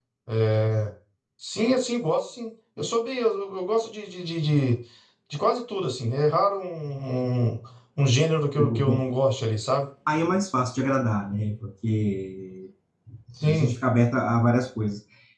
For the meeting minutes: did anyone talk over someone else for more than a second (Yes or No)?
No